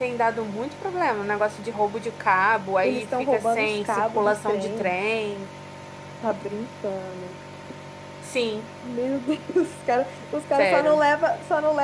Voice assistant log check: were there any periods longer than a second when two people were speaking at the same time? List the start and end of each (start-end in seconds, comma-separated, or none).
2.8-4.9